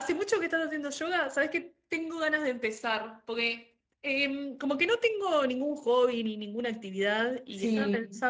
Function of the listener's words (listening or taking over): listening